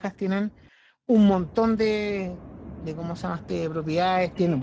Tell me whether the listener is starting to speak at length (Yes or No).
No